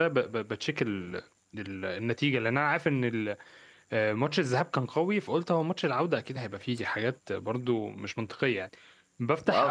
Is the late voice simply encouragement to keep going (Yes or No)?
Yes